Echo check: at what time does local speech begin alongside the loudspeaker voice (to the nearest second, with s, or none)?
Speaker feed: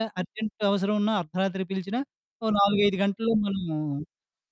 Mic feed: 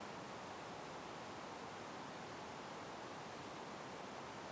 none